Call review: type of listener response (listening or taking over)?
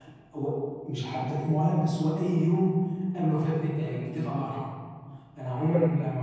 listening